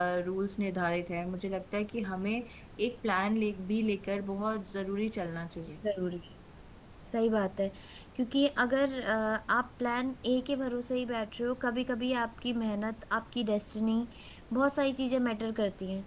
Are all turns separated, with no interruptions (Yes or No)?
Yes